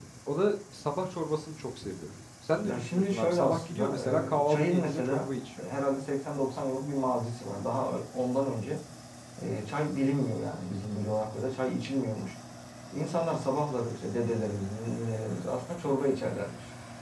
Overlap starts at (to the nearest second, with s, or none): 3 s